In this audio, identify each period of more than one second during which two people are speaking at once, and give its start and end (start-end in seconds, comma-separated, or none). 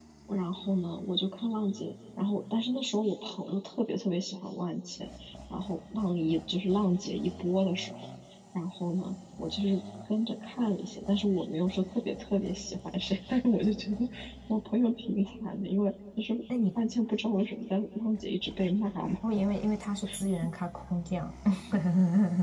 none